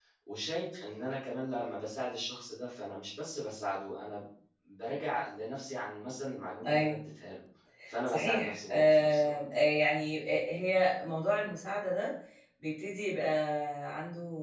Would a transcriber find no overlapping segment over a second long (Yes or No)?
No